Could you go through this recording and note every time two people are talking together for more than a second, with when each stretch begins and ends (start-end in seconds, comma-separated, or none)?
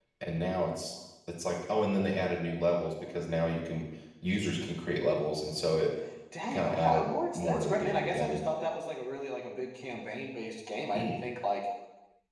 6.5-8.4